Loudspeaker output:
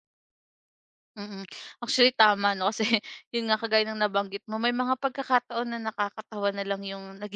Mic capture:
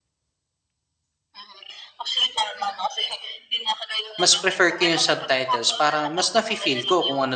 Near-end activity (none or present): present